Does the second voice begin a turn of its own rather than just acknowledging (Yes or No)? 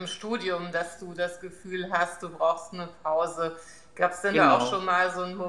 No